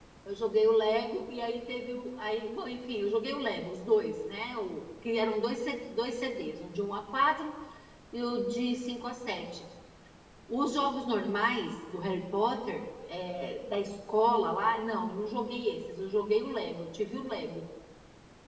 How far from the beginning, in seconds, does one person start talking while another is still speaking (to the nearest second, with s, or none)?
none